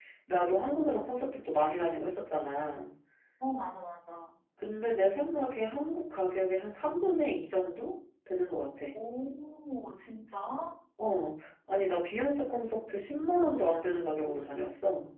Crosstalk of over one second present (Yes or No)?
No